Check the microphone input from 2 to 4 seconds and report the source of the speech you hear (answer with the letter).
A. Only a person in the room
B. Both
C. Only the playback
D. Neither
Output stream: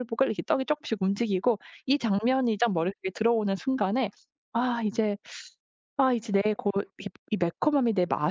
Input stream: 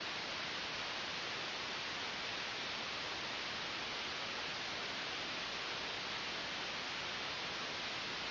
D